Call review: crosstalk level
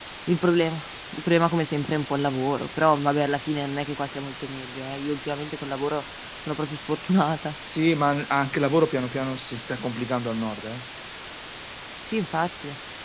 none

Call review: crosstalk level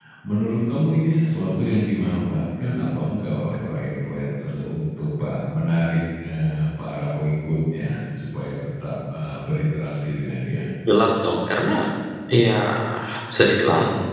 none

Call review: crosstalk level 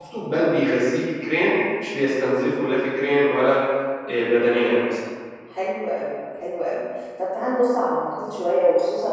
none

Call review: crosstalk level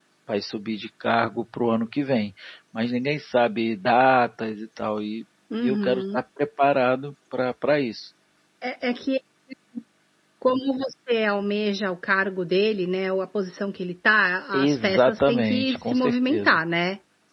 present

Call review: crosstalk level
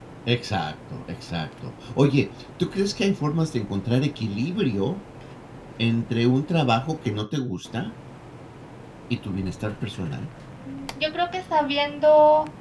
none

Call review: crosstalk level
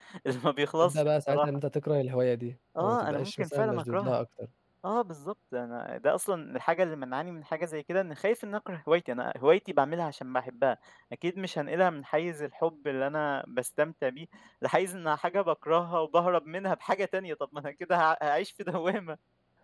present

